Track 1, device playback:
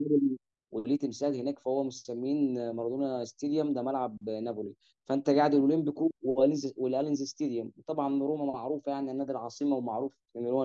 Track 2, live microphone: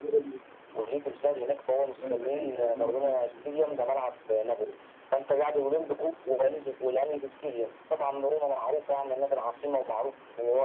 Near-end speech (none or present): present